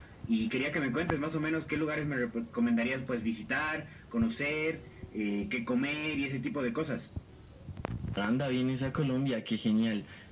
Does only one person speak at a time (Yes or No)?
Yes